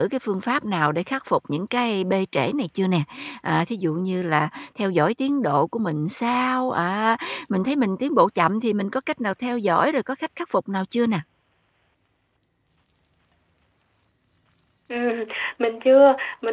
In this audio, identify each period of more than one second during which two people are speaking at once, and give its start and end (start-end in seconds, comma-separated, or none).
none